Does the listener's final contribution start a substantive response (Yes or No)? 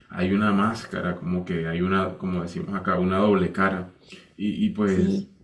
No